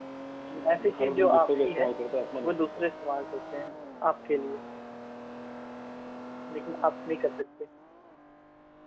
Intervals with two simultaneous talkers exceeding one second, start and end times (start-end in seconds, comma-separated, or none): 0.5-1.9